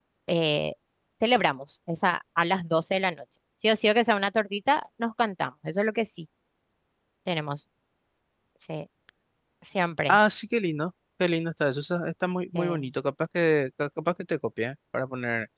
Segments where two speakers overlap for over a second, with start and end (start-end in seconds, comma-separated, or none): none